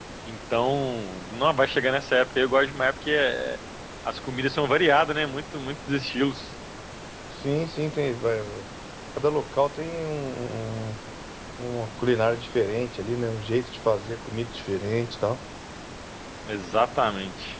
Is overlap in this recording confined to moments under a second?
Yes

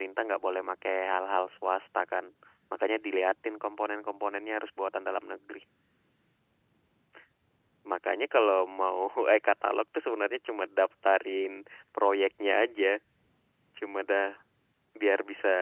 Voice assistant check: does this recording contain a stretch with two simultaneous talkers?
No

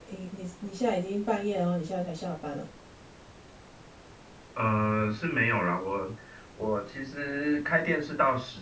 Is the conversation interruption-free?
Yes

